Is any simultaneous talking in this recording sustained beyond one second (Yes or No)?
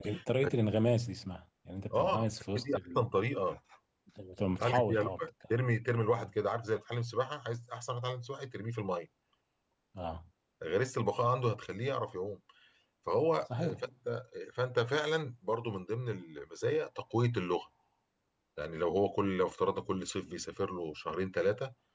Yes